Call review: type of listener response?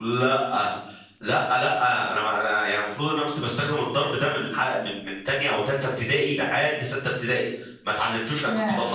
listening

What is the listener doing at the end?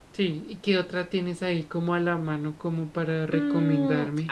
taking over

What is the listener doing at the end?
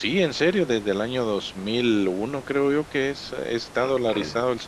taking over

